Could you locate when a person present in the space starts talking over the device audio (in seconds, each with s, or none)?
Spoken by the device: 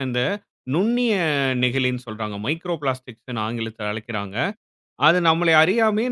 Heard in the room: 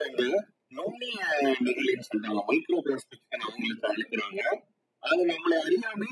none